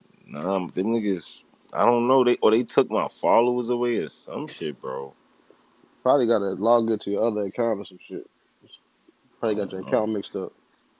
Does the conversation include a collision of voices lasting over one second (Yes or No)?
No